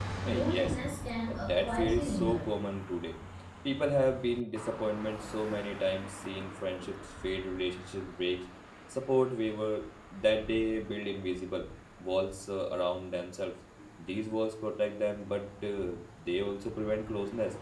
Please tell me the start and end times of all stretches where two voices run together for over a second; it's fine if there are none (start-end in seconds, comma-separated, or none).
1.3-2.5